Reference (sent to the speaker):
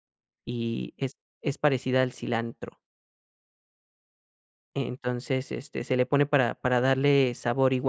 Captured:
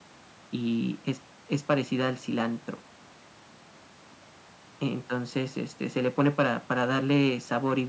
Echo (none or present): present